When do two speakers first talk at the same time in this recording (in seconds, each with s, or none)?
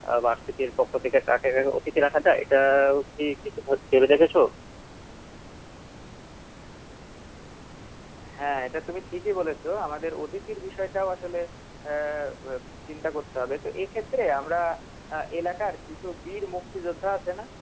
none